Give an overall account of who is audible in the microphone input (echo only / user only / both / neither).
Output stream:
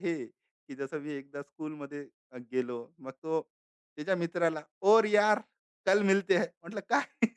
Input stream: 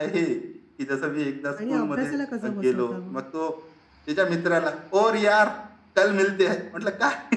both